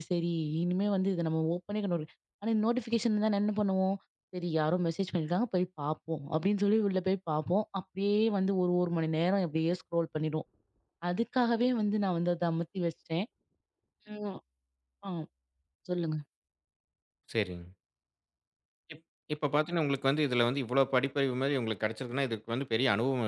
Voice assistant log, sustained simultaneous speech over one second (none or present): none